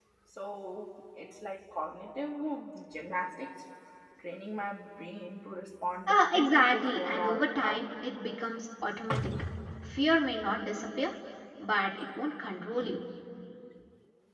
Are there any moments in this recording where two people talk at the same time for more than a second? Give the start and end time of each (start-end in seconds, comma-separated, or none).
6.1-7.8